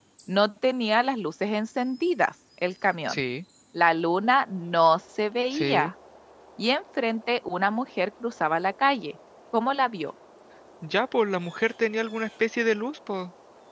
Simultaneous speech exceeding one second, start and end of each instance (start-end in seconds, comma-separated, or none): none